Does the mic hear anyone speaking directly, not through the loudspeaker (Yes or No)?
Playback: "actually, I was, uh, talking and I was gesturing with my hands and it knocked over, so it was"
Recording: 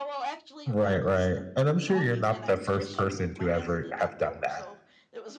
Yes